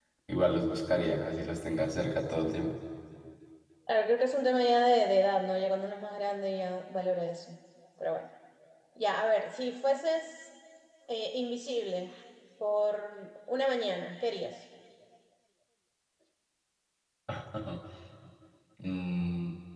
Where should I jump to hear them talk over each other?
none

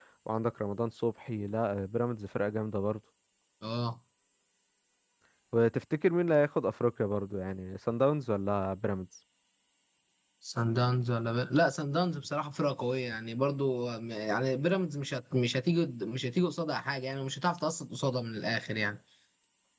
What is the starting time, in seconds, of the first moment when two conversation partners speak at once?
none

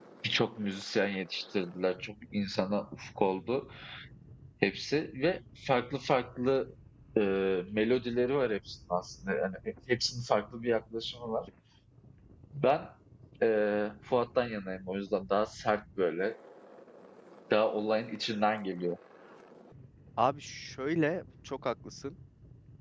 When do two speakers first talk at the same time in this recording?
none

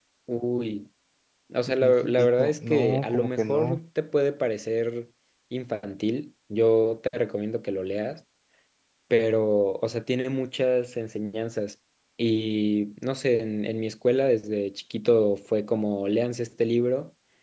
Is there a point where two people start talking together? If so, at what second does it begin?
1.7 s

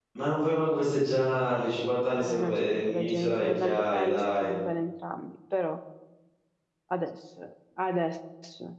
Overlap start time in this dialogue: 2.2 s

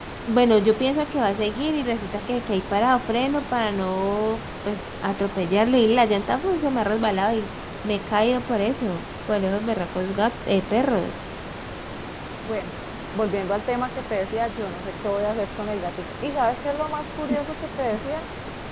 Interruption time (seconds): none

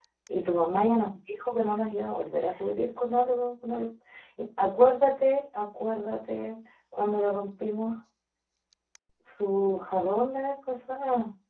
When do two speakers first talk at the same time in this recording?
none

